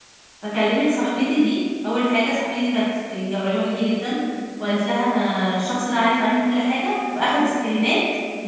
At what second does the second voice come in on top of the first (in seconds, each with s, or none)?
none